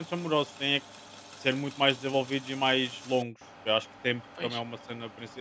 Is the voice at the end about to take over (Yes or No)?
No